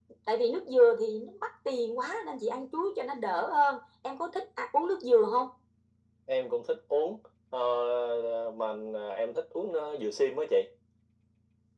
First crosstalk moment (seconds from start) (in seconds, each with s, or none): none